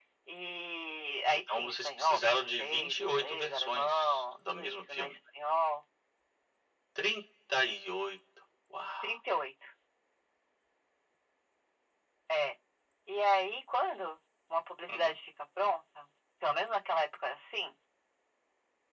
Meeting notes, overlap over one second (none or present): present